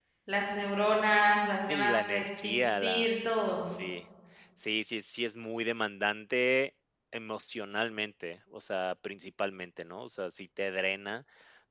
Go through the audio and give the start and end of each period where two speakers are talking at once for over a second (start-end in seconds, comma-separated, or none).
1.7-3.1